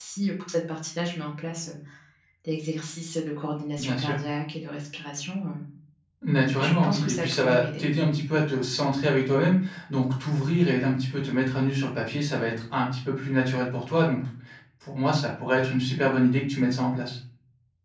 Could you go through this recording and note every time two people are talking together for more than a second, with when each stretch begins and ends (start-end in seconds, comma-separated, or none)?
6.6-7.8